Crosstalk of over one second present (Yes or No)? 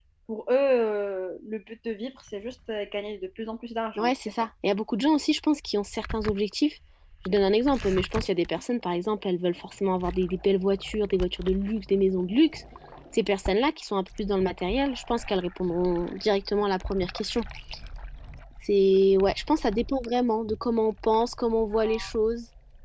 No